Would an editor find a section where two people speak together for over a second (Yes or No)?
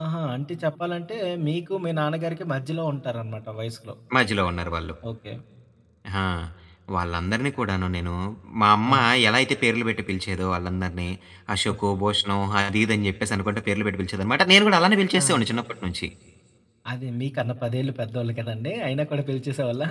No